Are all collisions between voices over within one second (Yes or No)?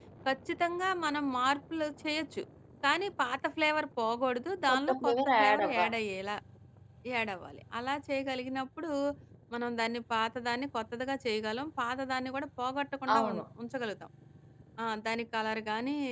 No